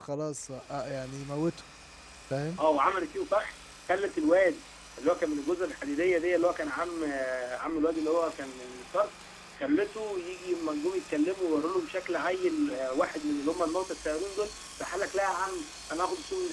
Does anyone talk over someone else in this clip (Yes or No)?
No